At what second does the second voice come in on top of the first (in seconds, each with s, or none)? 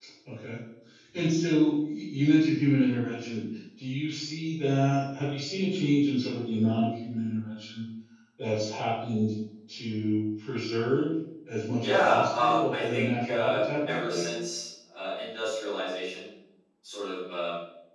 11.8 s